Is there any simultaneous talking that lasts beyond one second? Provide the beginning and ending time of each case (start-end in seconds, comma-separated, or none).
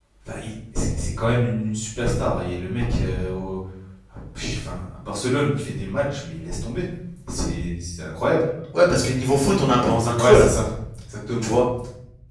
none